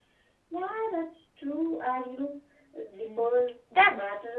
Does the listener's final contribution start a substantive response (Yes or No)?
Yes